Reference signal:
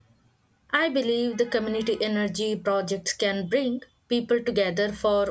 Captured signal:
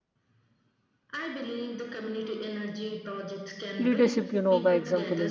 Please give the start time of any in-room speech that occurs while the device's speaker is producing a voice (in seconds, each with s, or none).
3.8 s